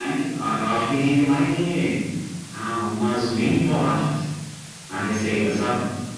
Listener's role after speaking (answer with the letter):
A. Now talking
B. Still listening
B